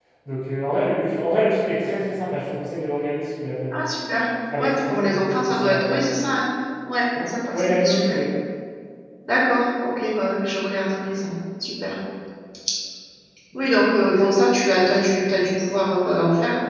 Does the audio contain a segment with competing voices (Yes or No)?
Yes